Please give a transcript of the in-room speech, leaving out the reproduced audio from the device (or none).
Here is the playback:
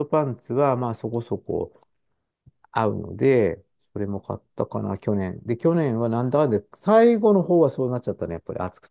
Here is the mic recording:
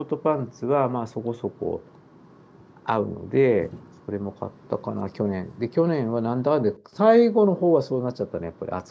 none